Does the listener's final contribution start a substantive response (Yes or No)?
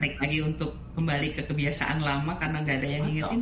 Yes